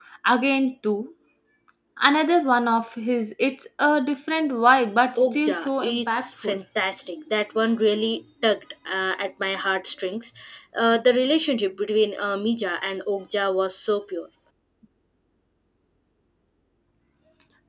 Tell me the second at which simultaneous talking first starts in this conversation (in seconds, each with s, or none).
5.2 s